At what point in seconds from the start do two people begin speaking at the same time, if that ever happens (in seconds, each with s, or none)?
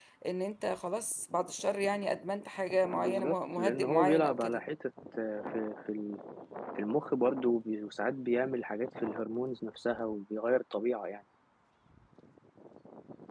2.9 s